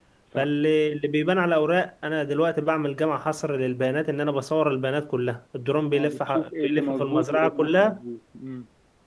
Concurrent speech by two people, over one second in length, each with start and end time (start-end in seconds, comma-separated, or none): 5.9-8.0